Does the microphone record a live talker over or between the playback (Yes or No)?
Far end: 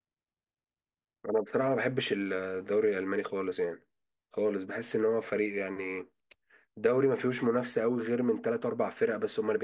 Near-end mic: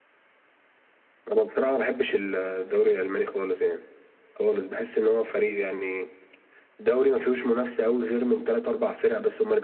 No